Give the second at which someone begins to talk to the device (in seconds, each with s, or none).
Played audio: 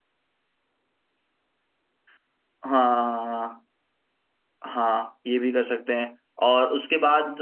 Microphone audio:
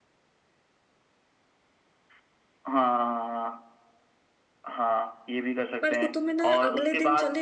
5.8 s